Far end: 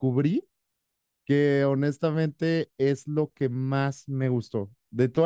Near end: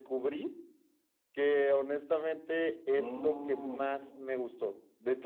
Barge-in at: 2.9 s

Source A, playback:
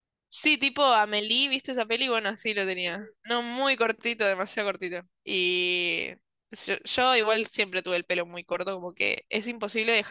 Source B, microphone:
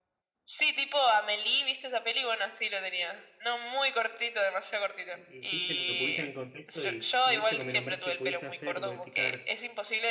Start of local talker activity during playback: 5.1 s

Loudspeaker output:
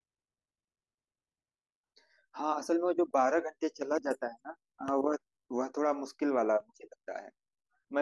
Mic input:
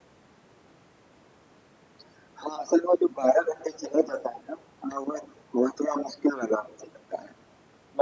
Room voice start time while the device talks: none

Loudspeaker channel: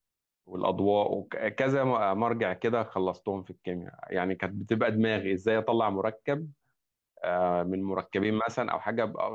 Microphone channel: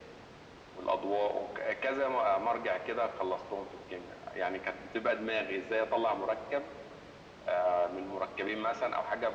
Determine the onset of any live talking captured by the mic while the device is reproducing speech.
none

